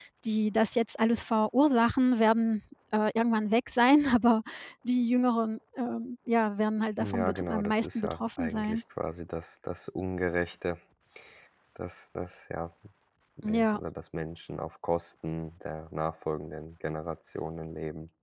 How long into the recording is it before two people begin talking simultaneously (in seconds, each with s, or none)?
7.0 s